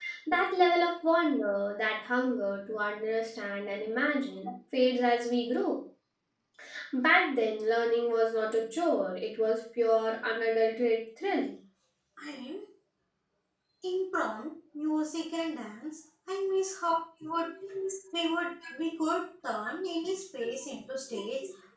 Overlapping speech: No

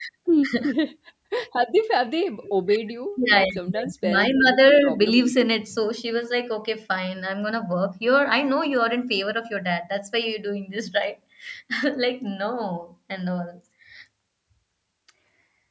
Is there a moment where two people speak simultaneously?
Yes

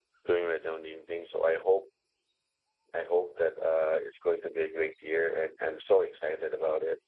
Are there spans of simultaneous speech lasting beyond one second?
No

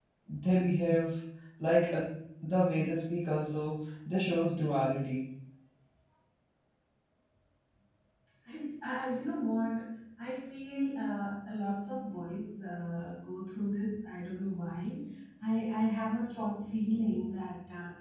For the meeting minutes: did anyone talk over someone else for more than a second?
No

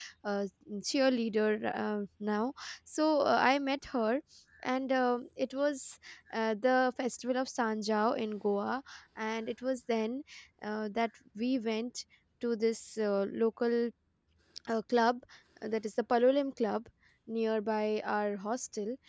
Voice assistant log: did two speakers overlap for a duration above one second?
No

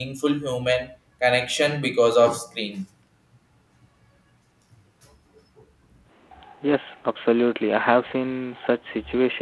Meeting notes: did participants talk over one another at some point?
No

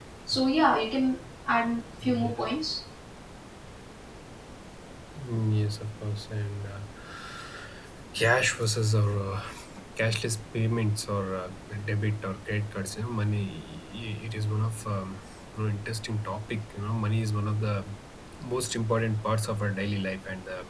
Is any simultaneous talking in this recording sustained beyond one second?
No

